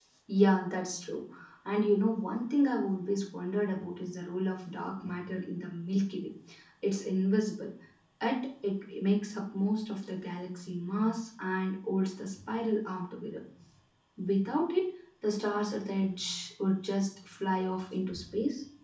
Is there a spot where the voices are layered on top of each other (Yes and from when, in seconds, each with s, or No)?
No